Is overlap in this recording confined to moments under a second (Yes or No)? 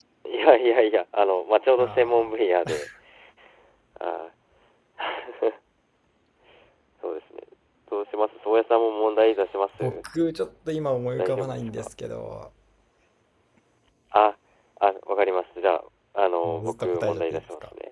No